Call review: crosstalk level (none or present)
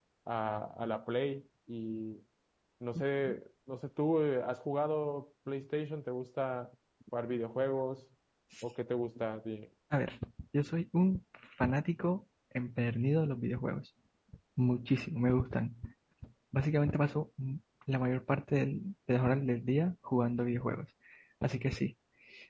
none